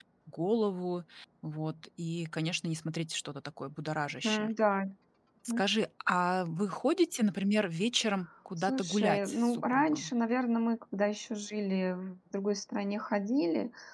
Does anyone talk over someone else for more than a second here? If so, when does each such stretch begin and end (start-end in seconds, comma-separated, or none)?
8.6-10.1